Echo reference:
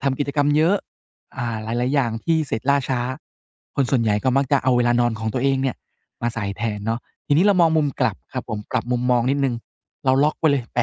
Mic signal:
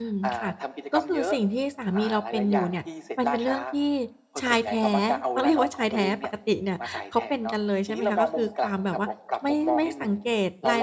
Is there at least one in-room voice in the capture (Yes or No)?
Yes